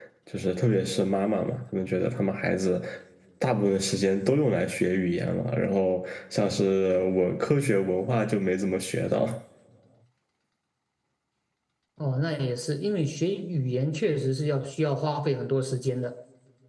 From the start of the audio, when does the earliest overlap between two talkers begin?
none

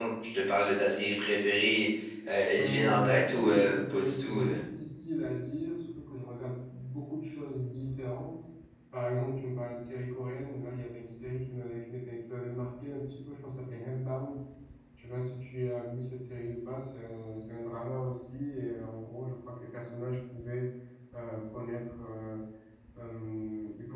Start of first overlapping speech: 2.6 s

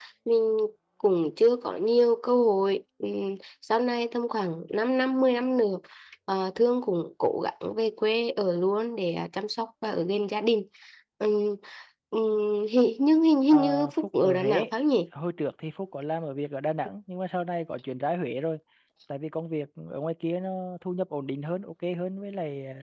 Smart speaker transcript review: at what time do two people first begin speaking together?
13.5 s

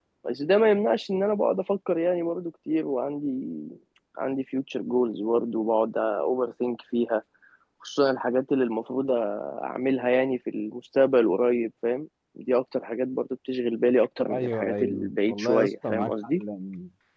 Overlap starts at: 14.3 s

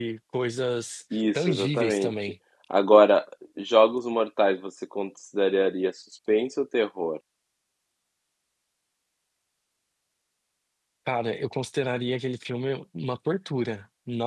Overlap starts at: 1.1 s

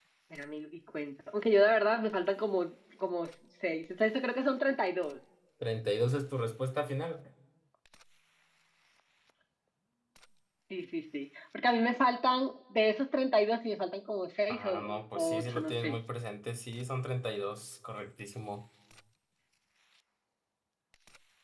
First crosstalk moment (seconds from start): 14.5 s

